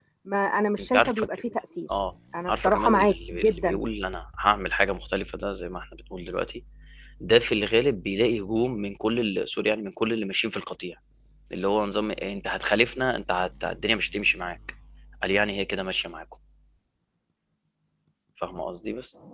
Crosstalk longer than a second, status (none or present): present